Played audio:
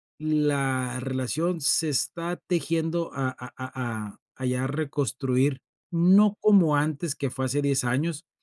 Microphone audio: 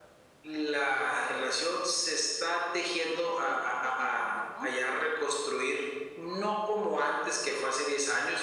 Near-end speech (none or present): present